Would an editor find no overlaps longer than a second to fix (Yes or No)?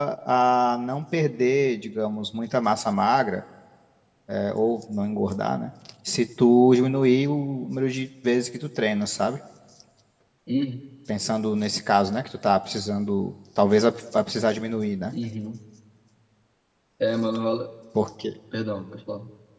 Yes